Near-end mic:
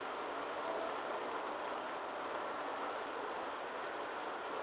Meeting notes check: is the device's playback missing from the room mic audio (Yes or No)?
Yes